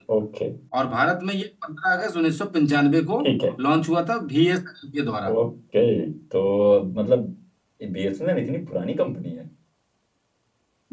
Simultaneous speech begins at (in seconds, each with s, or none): none